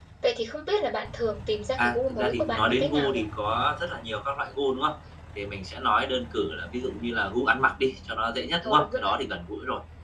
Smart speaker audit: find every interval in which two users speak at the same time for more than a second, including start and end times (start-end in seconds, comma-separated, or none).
1.8-3.2